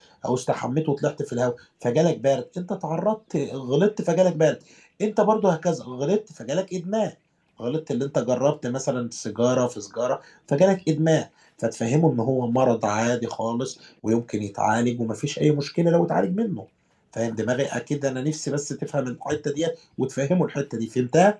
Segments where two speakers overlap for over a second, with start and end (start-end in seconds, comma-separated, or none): none